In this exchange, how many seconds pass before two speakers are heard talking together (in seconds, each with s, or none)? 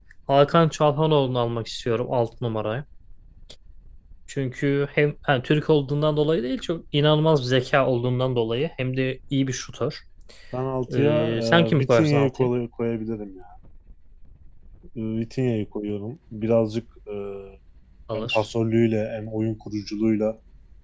11.0 s